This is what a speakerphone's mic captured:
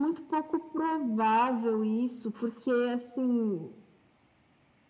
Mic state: echo only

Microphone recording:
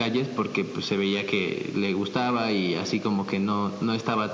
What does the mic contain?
echo only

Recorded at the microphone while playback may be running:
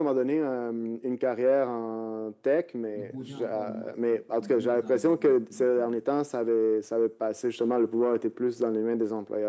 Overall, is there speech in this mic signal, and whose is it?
both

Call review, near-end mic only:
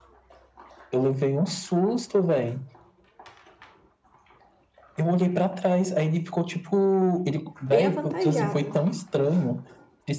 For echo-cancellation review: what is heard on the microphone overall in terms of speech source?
both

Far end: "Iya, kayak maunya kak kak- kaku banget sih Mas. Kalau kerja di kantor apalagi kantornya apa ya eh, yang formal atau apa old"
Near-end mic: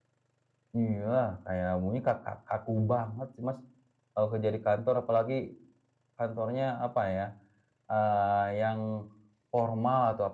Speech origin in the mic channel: echo only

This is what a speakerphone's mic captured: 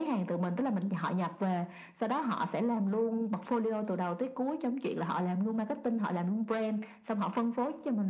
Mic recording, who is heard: echo only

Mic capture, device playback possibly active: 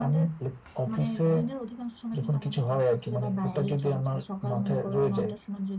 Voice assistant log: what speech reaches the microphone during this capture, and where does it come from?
echo only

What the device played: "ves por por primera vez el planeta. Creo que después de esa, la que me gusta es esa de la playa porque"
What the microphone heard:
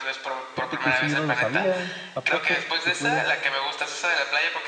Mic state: both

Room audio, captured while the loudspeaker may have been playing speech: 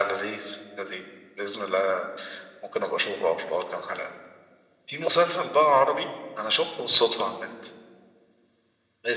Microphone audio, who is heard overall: echo only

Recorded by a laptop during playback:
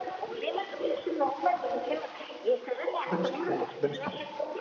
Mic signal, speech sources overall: both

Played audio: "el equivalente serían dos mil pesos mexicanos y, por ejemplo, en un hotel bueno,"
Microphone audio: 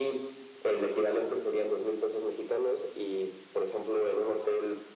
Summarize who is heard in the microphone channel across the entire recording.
echo only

